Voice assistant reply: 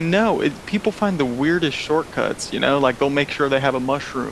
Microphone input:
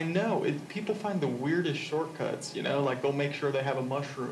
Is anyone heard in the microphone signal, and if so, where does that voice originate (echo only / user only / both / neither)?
echo only